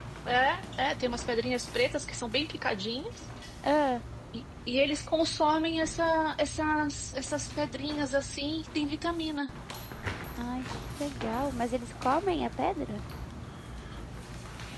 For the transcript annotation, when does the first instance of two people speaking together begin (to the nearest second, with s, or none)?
none